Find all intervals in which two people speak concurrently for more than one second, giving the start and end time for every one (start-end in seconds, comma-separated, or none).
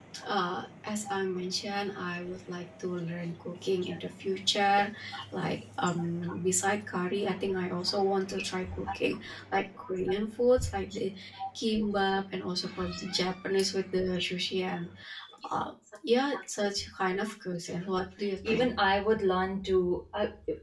none